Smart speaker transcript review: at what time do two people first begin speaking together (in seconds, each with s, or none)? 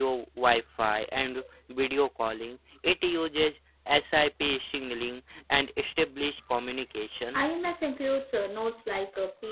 none